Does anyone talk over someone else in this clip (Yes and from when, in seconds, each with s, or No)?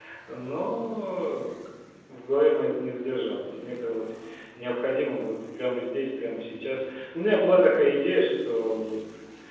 No